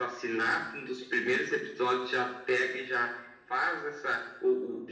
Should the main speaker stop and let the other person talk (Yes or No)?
No